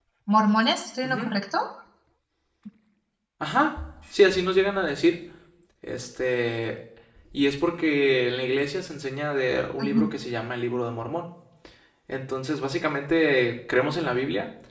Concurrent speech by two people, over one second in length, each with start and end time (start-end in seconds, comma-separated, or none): none